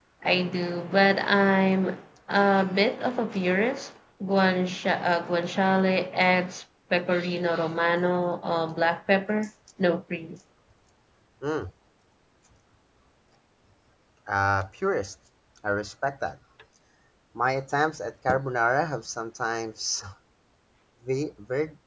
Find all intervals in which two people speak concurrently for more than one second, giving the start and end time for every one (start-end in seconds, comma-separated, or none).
none